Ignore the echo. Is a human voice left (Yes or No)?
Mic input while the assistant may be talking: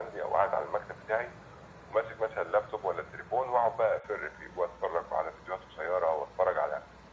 No